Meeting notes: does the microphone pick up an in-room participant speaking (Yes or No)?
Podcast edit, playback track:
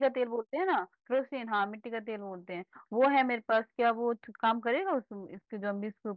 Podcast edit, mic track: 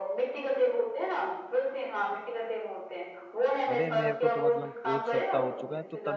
Yes